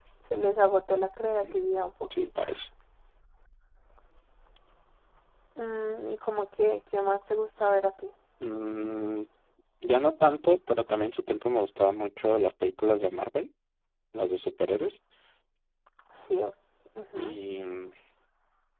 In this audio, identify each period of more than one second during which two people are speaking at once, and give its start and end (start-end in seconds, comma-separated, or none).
none